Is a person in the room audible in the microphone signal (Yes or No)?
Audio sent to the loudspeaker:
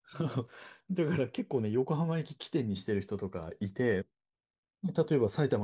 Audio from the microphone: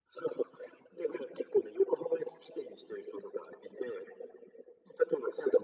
No